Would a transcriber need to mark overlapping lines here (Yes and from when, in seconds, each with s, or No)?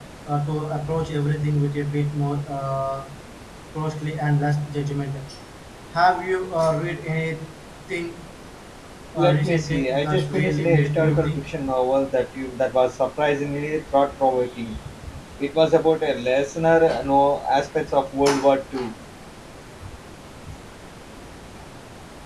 Yes, from 9.2 s